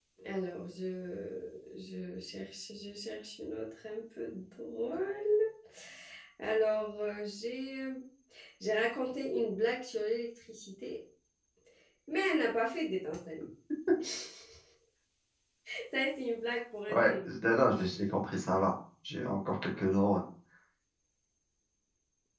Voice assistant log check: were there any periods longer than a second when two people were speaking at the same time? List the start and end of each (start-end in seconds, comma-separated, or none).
none